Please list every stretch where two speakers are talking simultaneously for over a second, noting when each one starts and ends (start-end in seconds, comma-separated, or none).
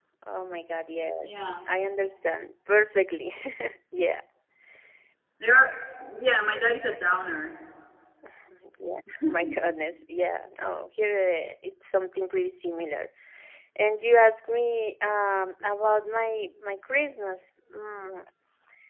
none